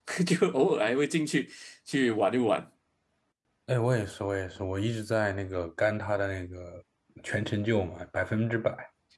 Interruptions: none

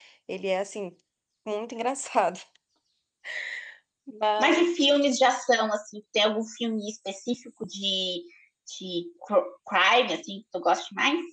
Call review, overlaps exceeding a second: none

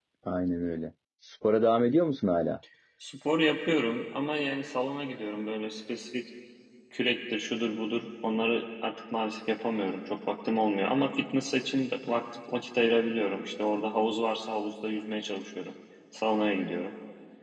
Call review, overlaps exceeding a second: none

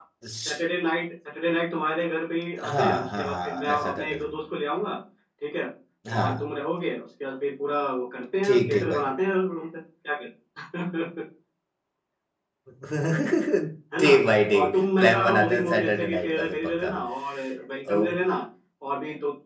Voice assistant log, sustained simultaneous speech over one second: present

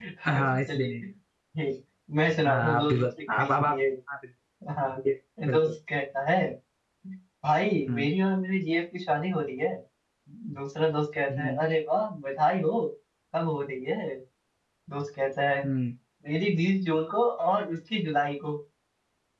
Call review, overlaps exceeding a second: present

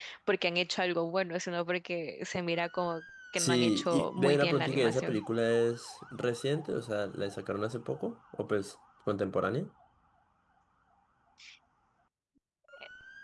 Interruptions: present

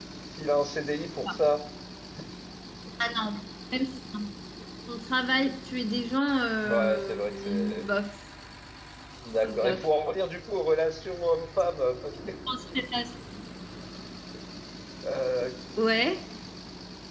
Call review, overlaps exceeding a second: present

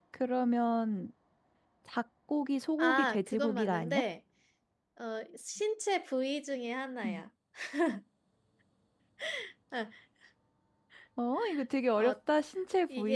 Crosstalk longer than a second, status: present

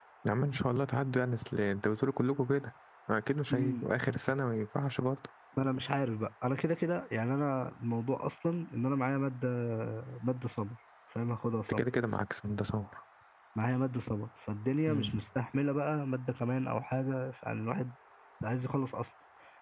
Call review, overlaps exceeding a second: none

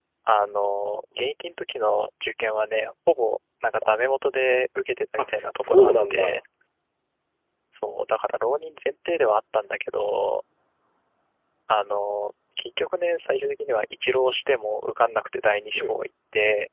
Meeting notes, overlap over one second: present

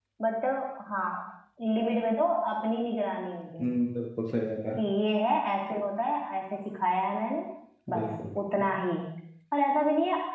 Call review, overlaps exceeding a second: none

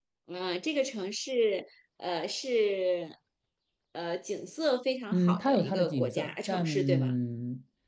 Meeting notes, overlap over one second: present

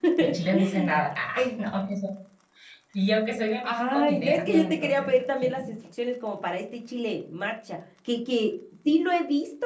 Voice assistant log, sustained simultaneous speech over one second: present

